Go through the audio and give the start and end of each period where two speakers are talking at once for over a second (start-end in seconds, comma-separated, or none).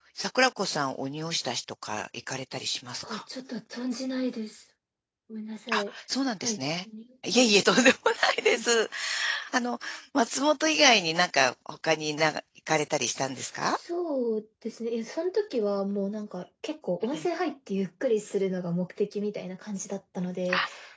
none